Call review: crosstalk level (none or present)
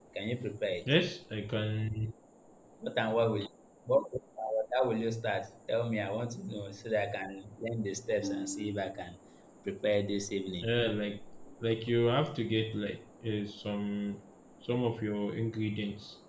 none